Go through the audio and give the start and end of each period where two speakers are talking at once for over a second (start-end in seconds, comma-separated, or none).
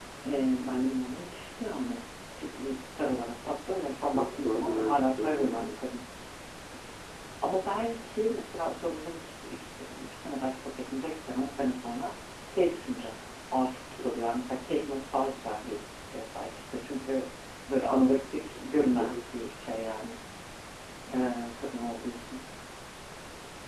4.1-5.7